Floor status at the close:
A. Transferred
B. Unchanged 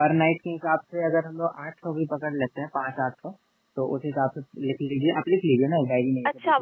A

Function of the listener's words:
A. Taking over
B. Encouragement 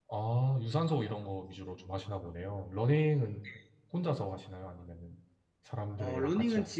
A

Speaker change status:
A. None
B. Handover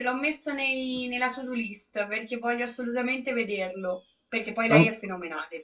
A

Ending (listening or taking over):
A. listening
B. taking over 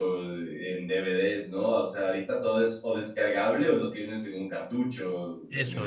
B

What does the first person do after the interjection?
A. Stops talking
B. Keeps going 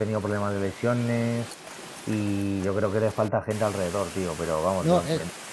A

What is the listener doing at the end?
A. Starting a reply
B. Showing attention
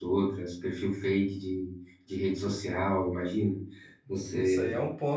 A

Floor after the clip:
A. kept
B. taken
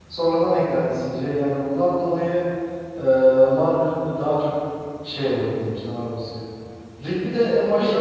A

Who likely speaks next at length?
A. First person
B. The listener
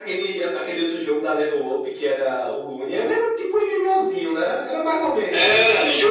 B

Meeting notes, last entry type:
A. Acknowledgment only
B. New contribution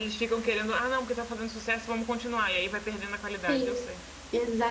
B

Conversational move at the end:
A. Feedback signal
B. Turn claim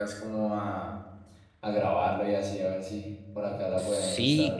B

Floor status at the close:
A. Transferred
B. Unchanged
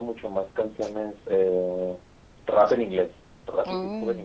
B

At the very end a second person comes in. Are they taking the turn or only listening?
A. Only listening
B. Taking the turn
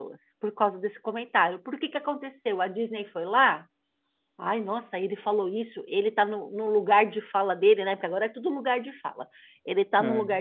A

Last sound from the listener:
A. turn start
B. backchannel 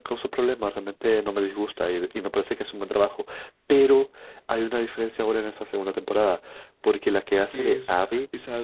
A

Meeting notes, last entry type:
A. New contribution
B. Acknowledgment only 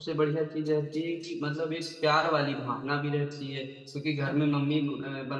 B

